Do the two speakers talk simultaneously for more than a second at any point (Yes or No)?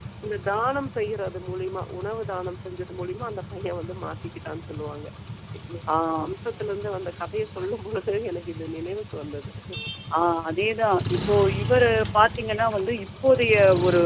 No